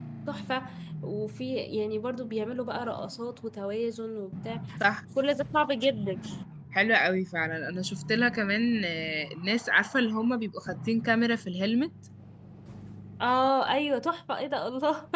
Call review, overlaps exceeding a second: none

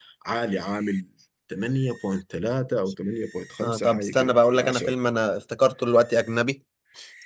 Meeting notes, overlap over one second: present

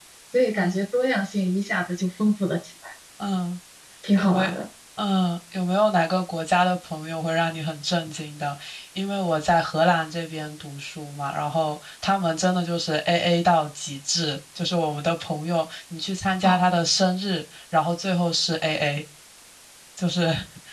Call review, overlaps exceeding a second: none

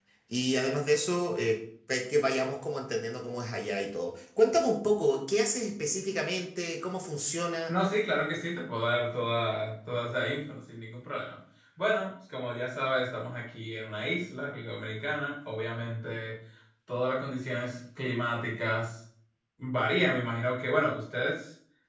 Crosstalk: none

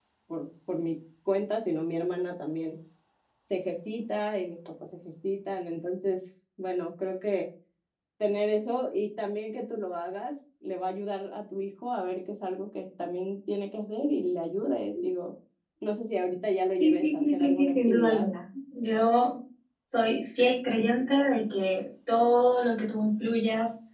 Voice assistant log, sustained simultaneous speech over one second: present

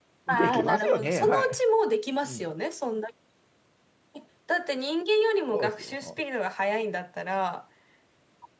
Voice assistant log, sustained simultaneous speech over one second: present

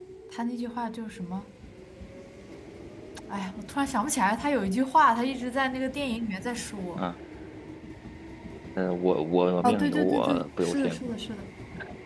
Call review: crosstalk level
present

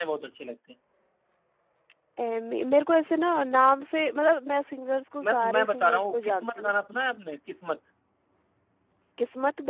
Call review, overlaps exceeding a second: present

